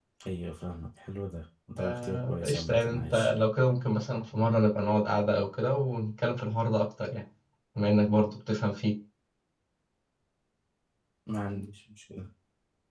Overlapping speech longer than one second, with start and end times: 1.8-3.3

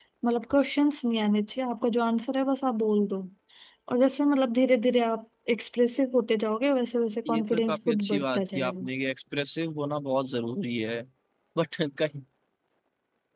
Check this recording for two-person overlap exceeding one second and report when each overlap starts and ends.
7.3-8.9

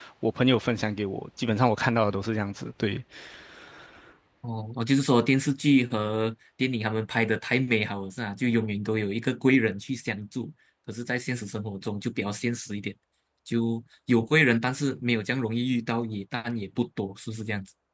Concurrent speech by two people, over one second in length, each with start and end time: none

